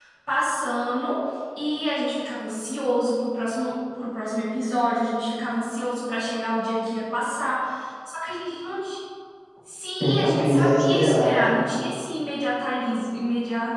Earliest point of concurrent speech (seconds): 10.0 s

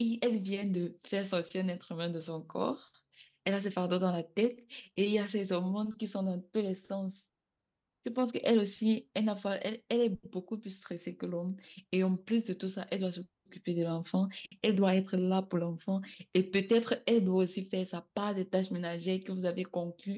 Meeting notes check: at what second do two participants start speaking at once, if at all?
none

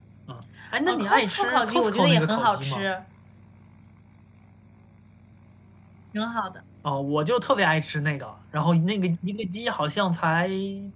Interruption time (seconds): 0.8 s

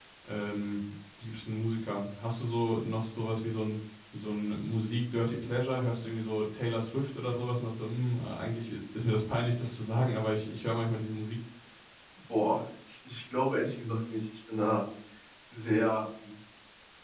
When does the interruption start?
none

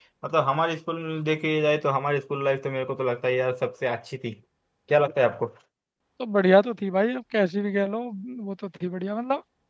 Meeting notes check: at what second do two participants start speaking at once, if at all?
none

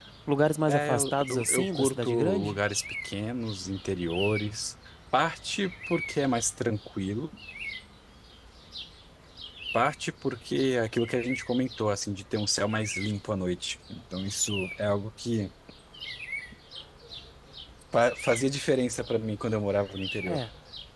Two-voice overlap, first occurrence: 0.7 s

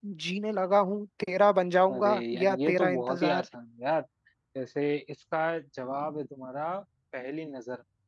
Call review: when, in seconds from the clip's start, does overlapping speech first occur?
1.9 s

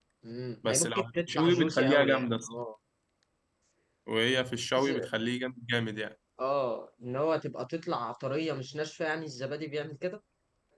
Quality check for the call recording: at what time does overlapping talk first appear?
0.7 s

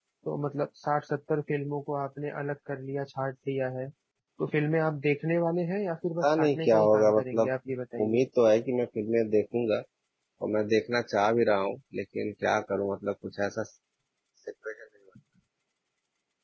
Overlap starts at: 6.2 s

